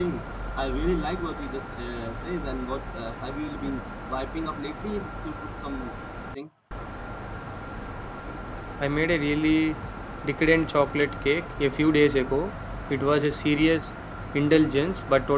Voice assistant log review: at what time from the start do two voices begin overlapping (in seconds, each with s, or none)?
none